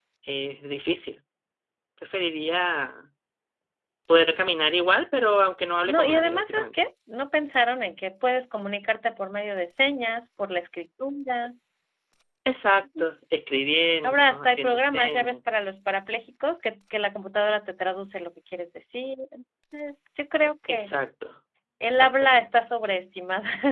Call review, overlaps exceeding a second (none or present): present